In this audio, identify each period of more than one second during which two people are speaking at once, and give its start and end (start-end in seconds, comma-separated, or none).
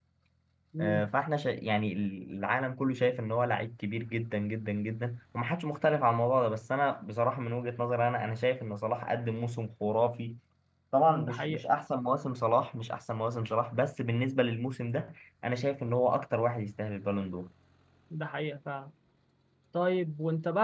none